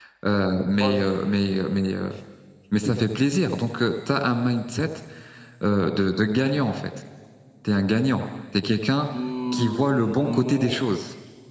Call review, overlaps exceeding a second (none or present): present